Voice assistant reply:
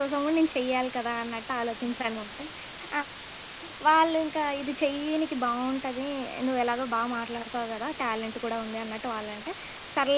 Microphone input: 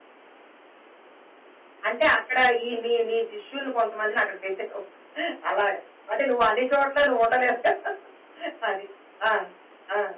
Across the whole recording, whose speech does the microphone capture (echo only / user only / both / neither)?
user only